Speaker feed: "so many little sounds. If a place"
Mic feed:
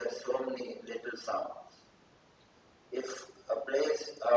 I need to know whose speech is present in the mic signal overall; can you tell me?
echo only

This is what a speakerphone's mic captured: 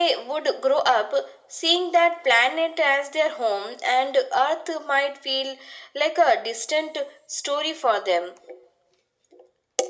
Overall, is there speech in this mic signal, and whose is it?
echo only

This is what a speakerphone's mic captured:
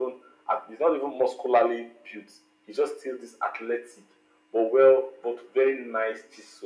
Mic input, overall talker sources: echo only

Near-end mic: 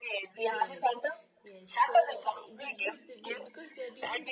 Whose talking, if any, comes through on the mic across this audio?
both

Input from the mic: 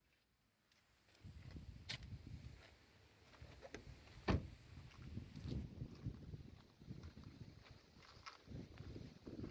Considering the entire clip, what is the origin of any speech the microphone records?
neither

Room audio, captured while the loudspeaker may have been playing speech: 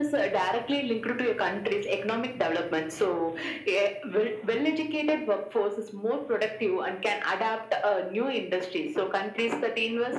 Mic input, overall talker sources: echo only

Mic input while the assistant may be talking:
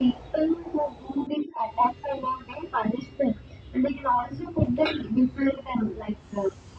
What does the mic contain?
echo only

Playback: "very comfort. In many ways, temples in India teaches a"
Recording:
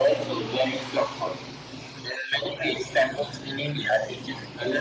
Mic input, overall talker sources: echo only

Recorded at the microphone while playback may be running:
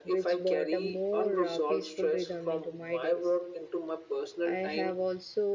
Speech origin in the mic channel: both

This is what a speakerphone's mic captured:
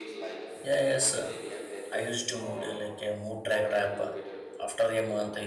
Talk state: both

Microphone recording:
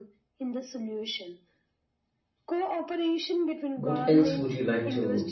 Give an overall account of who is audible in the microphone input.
both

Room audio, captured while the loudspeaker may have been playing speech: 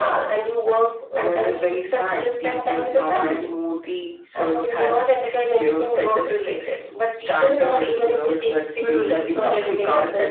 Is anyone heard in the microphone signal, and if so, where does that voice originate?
both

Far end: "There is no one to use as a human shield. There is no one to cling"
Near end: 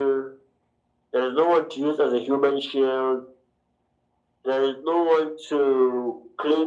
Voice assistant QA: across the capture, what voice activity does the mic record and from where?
echo only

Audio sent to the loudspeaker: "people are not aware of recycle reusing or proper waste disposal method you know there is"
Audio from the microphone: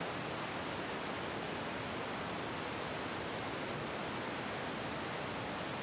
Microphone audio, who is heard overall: neither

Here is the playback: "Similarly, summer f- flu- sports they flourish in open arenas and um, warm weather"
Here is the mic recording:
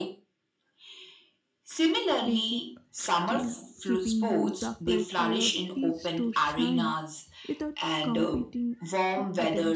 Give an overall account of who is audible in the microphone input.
both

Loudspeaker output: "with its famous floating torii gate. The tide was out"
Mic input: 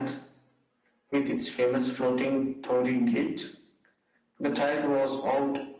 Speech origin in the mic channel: echo only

